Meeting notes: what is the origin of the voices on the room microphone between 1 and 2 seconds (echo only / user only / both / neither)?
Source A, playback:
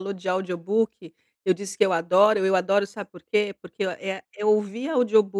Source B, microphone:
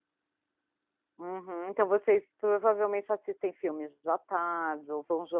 user only